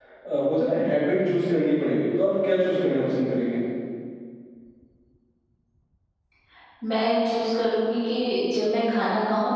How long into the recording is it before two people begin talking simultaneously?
none

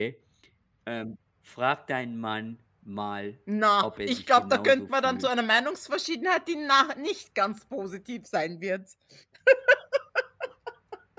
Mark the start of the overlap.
4 s

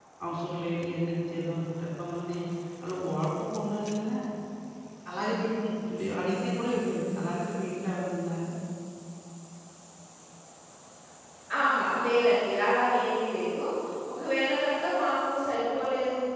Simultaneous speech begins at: none

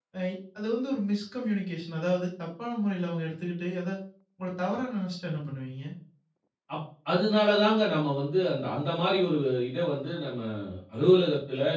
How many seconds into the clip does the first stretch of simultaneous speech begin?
none

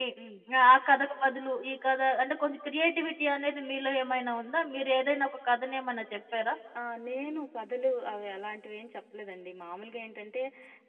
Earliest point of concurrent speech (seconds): none

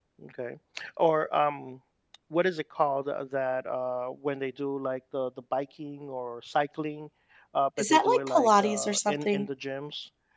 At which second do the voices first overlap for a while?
8 s

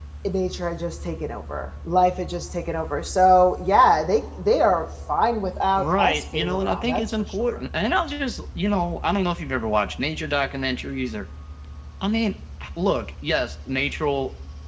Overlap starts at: 6 s

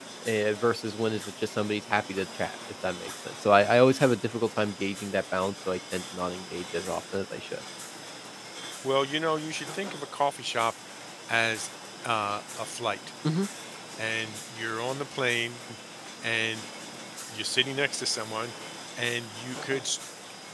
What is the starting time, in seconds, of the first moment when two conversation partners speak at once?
none

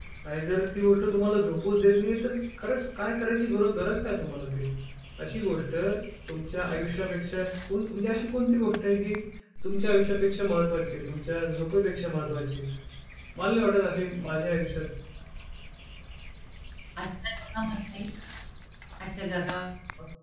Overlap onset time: none

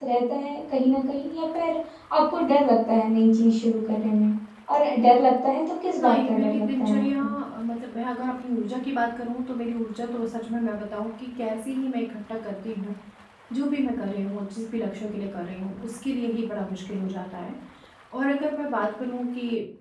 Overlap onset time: 6 s

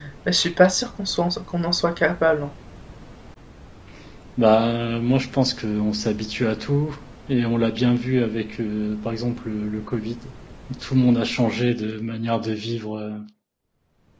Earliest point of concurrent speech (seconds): none

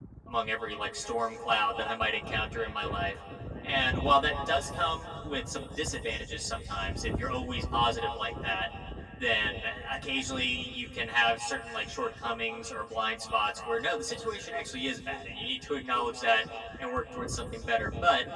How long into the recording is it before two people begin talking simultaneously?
none

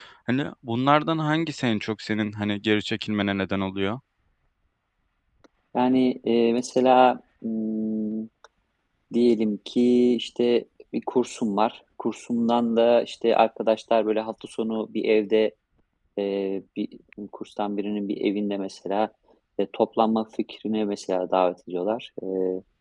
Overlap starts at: none

